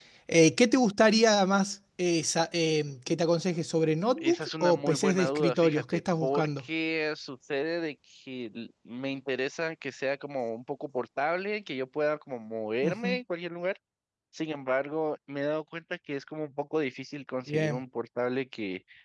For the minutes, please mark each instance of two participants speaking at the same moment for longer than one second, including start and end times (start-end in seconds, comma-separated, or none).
4.2-6.7